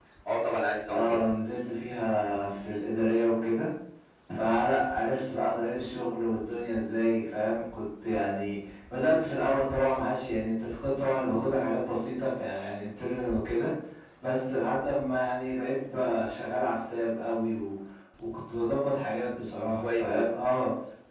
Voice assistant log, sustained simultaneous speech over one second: none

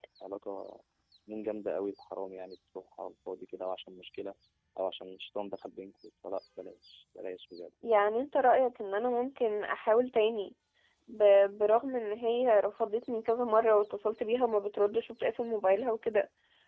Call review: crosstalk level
none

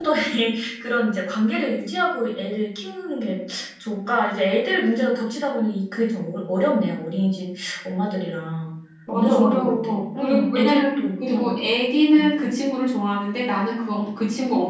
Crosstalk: present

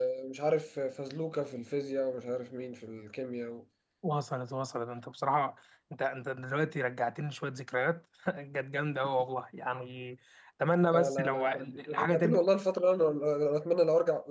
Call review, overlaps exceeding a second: present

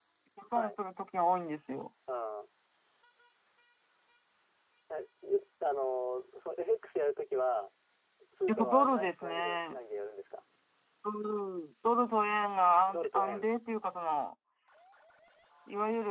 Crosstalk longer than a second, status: present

